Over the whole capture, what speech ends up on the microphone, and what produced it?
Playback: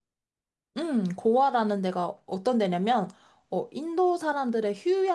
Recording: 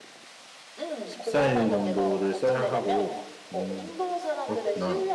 both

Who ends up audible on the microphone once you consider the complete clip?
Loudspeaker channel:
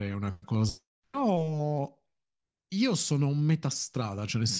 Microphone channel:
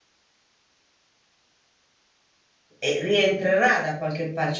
user only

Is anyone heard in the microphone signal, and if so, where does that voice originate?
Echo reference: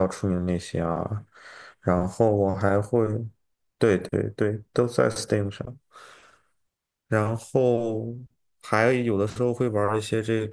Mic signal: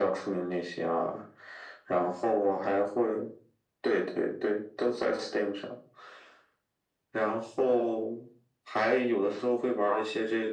echo only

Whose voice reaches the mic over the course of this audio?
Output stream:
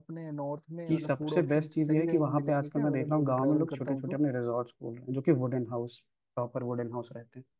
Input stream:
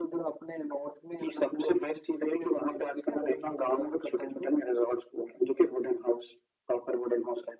echo only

